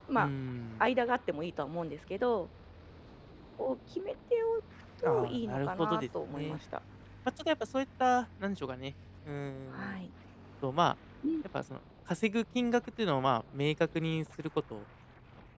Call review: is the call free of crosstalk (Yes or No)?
No